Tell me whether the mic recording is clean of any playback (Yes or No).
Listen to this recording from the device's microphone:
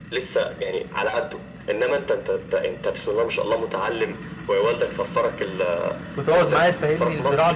No